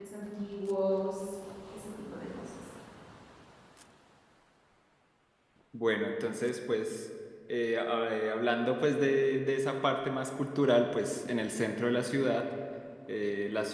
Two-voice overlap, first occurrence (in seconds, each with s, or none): none